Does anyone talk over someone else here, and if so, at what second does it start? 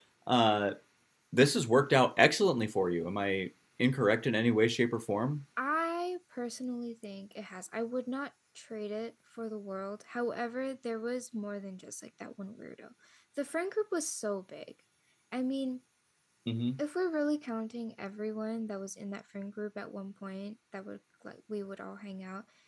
none

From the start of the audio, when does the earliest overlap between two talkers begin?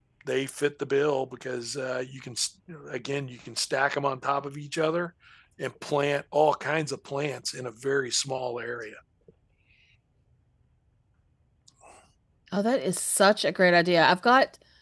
none

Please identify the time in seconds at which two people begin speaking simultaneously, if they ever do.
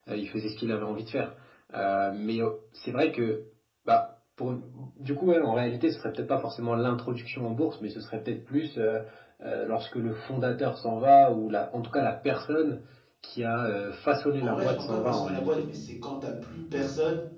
14.4 s

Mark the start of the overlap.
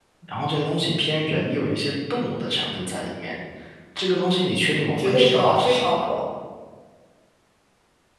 4.9 s

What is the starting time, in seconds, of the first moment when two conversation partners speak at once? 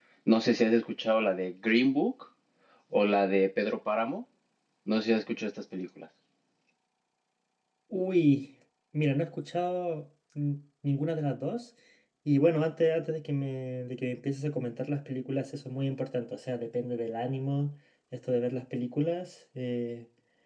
none

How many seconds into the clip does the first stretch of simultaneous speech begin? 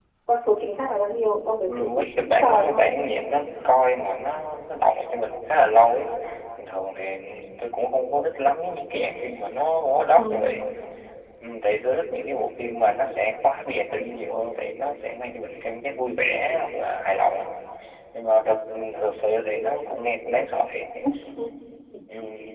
1.7 s

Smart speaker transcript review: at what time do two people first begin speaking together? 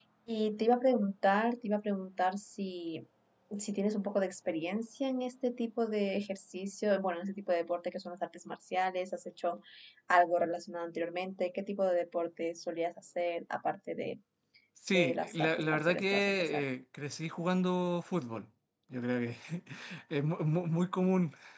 14.9 s

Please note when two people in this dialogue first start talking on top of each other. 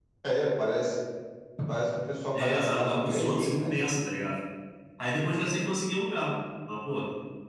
2.3 s

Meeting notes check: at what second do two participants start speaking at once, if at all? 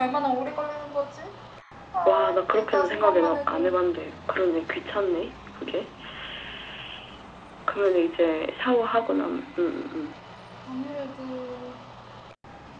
2.0 s

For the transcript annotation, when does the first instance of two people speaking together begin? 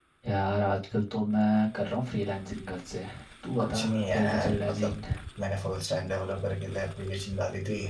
3.6 s

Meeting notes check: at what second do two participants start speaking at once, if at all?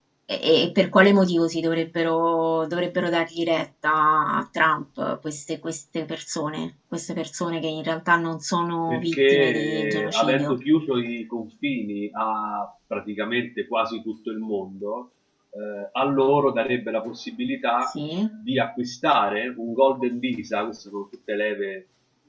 8.9 s

